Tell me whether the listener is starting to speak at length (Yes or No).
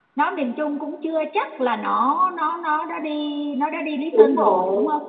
Yes